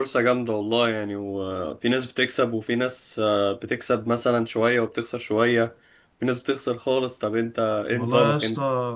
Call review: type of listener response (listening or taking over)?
taking over